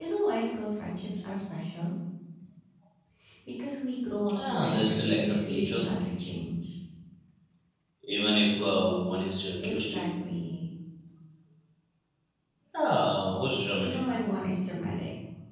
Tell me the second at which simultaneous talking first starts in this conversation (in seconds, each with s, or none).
4.4 s